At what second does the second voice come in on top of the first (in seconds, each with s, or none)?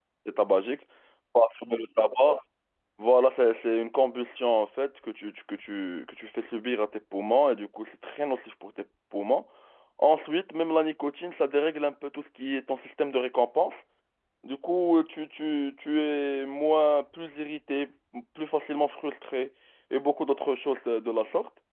none